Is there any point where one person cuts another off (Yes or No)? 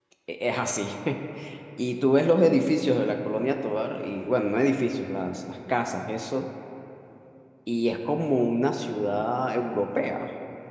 No